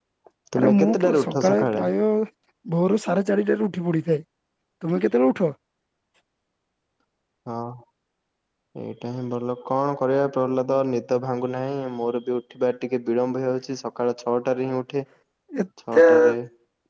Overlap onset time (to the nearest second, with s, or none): 1 s